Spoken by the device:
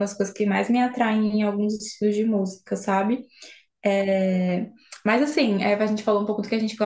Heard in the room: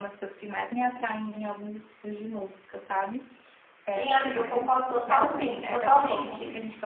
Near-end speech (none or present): present